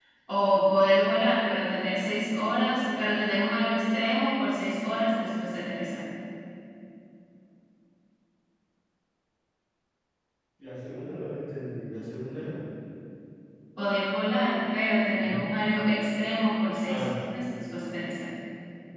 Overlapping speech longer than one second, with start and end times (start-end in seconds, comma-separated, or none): none